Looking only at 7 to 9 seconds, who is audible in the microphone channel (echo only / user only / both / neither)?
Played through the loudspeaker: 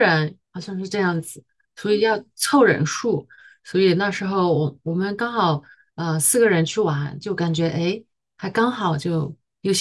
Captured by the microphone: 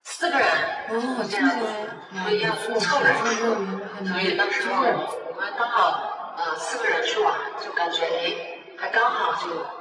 echo only